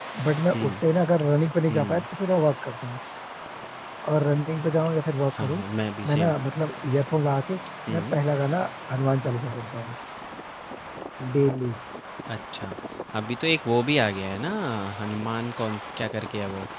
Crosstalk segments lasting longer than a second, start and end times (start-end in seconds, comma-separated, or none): none